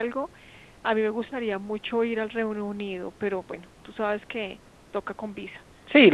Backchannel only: No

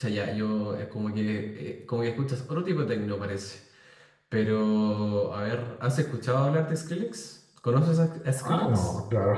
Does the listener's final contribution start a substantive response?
Yes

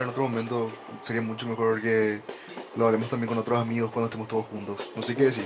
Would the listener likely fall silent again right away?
No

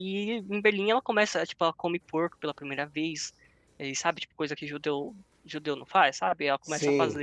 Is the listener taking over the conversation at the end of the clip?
No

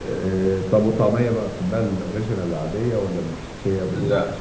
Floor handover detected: Yes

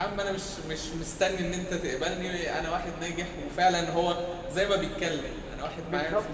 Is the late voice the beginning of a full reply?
No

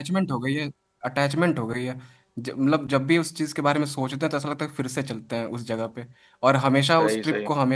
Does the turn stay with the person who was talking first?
Yes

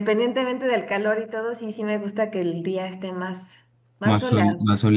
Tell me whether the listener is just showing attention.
No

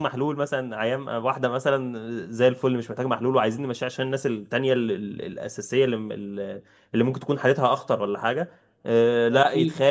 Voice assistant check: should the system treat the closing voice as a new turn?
No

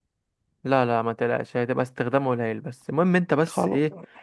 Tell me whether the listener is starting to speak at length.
No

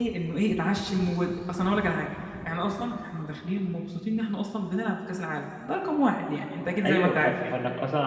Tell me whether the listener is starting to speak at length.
Yes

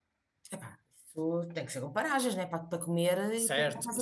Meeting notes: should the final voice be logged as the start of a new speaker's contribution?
Yes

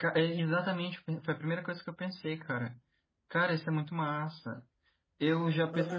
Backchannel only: No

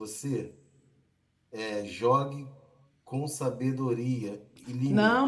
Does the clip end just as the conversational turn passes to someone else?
Yes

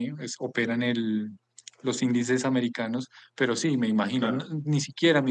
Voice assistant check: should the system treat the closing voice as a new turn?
No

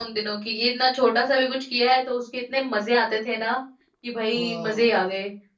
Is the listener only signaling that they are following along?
Yes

